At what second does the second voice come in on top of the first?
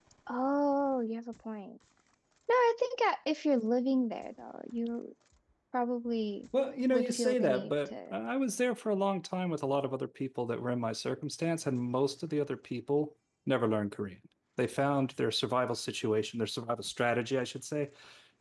6.9 s

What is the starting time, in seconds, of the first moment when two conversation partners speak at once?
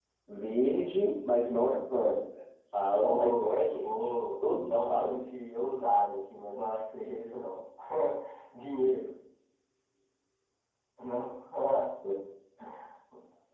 2.9 s

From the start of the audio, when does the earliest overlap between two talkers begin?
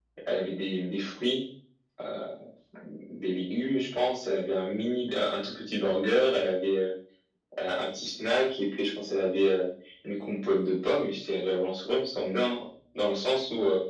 none

